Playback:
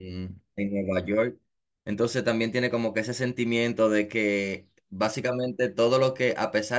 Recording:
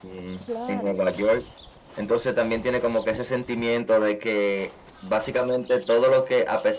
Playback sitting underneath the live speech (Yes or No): No